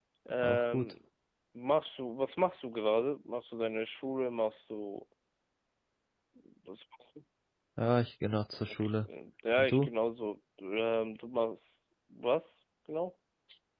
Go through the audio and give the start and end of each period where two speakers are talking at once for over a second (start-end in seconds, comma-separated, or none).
none